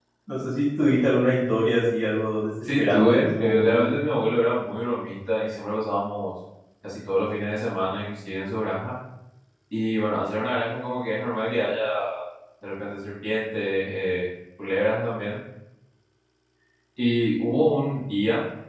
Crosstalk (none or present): present